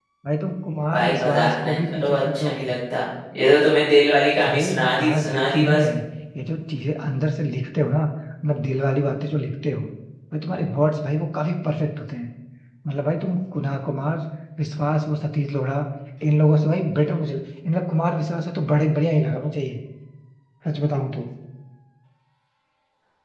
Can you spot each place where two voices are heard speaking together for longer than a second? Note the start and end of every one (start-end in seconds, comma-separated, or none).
0.9-2.7, 4.4-5.8